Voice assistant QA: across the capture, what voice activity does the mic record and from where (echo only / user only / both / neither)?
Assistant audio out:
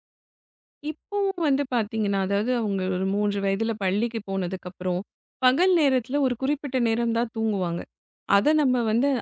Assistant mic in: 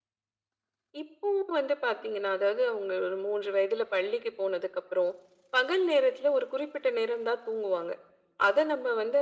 echo only